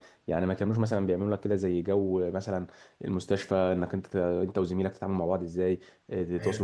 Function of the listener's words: listening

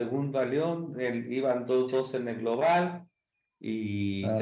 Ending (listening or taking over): listening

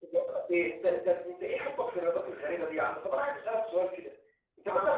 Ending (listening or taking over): listening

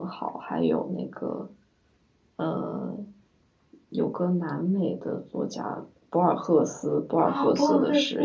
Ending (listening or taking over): taking over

